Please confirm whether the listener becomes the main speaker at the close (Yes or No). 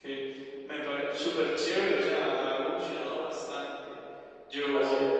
No